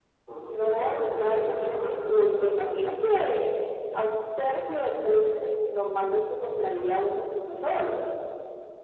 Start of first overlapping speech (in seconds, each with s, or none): 0.6 s